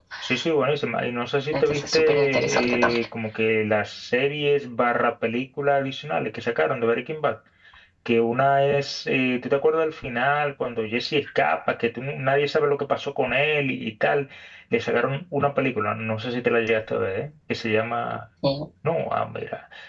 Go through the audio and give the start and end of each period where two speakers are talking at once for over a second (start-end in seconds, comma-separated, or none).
1.5-3.0